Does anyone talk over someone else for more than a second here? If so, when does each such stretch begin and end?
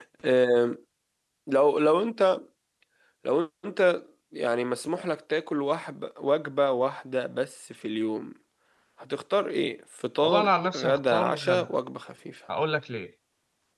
10.2-11.7

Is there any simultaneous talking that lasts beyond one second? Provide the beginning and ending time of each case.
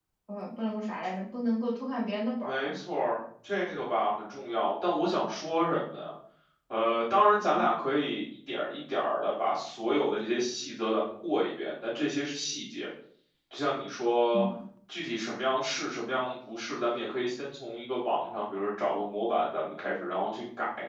none

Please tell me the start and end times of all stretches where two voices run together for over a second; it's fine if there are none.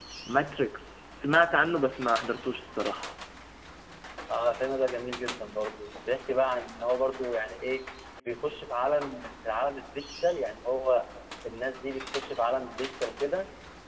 none

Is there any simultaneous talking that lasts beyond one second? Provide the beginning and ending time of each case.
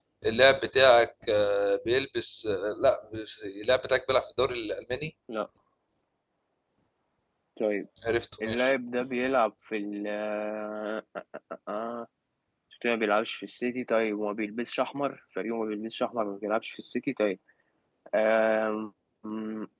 none

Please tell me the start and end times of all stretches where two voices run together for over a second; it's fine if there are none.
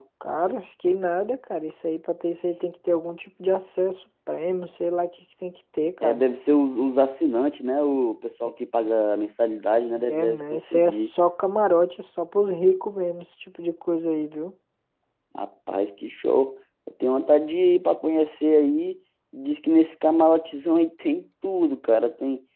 9.9-11.1

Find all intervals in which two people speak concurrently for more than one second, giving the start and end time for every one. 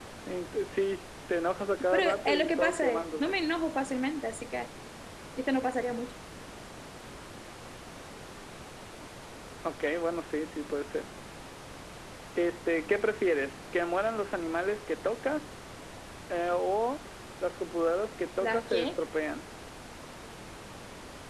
1.9-3.4

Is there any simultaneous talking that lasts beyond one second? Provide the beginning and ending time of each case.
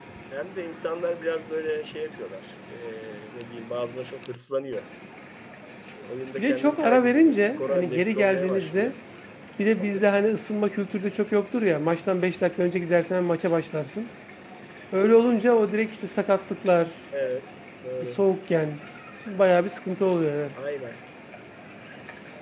6.4-8.9

